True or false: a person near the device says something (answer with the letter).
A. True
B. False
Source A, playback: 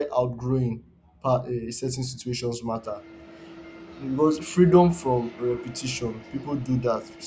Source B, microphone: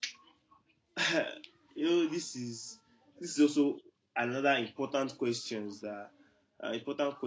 A